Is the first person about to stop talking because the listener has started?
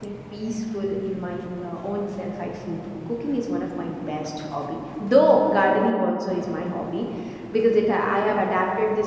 No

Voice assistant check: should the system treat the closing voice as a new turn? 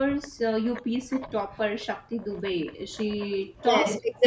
Yes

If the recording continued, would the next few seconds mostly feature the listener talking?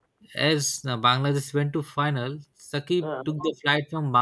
No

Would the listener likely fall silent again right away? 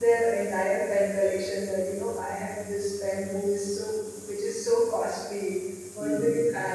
Yes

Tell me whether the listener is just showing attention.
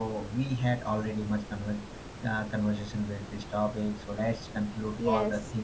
Yes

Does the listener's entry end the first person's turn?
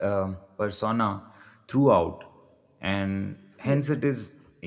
No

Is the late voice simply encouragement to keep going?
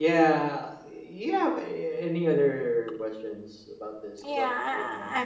No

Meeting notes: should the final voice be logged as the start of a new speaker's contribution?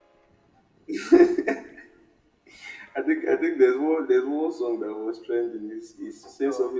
No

